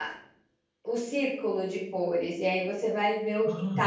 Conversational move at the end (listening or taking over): listening